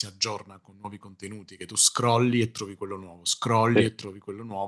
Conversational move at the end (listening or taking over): listening